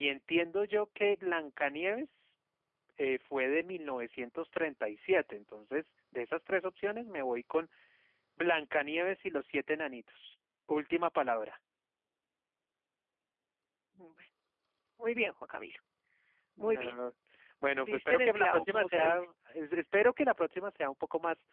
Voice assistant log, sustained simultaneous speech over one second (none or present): present